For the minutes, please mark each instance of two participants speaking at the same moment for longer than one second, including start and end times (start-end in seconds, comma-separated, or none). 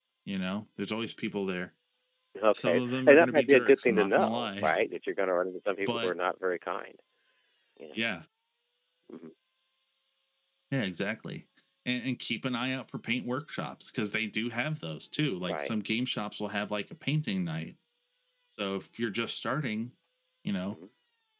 2.5-4.7